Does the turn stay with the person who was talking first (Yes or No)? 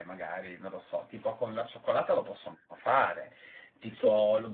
Yes